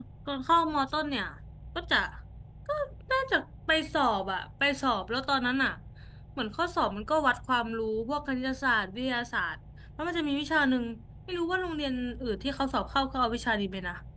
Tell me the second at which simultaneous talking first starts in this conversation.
none

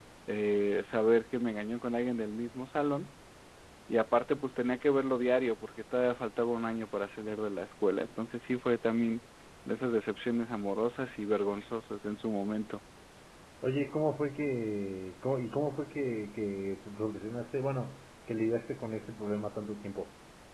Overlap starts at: none

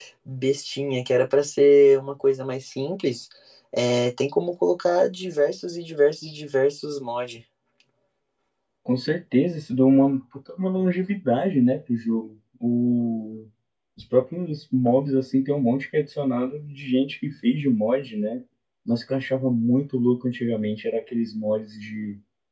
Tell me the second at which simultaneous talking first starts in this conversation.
none

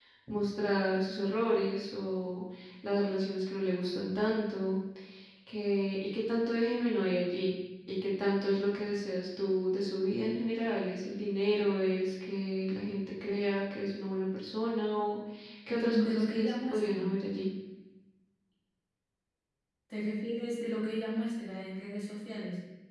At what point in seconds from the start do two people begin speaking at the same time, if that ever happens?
15.7 s

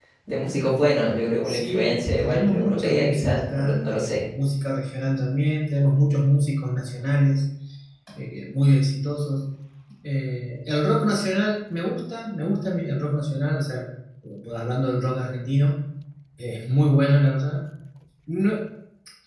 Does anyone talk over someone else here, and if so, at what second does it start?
1.4 s

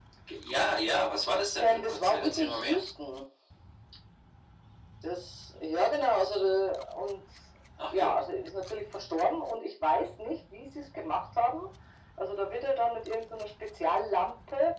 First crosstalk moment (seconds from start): 1.6 s

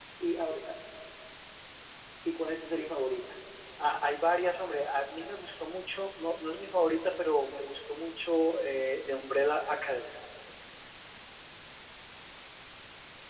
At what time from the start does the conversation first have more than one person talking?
none

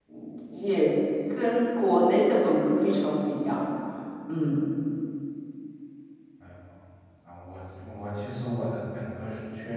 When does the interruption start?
none

